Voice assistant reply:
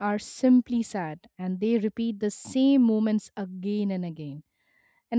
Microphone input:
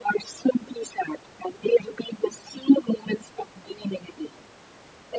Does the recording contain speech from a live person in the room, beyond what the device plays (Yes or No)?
No